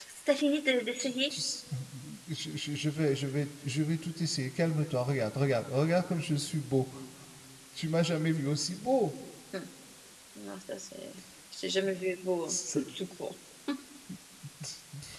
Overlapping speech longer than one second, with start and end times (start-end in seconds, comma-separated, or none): none